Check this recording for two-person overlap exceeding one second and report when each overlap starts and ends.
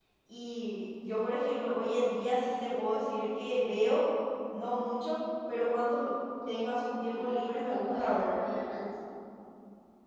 7.1-8.3

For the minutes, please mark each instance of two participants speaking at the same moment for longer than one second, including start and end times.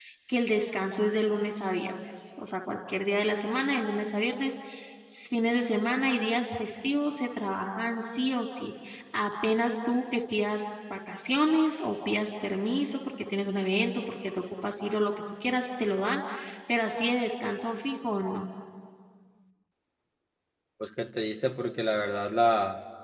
none

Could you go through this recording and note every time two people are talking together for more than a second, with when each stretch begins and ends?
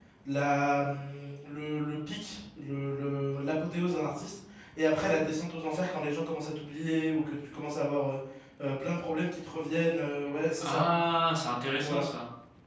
none

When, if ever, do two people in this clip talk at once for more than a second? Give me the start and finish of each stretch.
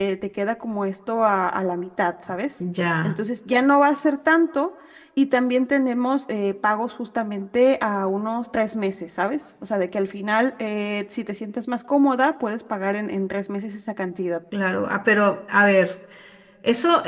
none

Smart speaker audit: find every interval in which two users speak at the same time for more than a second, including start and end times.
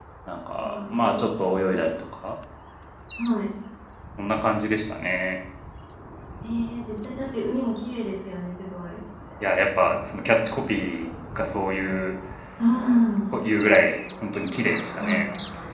0.6-1.8

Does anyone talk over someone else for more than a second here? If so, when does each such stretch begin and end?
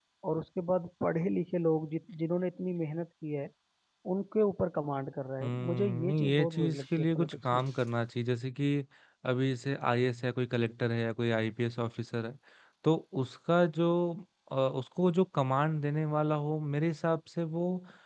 5.4-7.7

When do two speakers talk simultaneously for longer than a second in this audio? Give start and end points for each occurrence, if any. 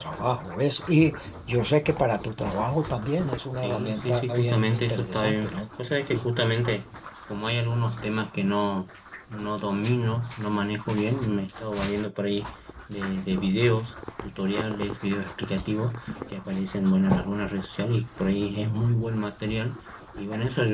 3.6-5.5

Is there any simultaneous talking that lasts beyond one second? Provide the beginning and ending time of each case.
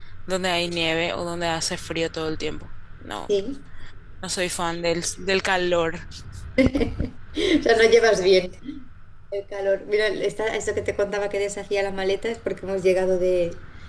none

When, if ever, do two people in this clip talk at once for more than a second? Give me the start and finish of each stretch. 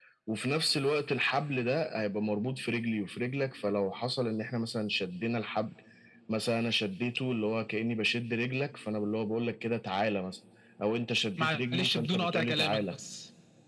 11.4-12.9

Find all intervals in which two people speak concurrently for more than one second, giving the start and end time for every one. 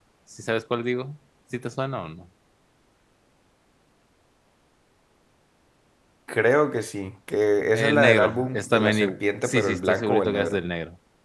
7.7-10.6

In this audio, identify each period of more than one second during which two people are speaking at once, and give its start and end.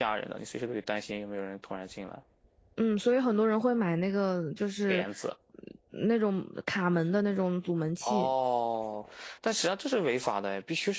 none

